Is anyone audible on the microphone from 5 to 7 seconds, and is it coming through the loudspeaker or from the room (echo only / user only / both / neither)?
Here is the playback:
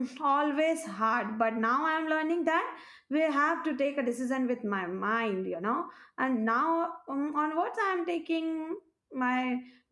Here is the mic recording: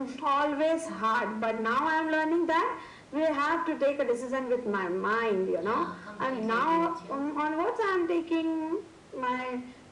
both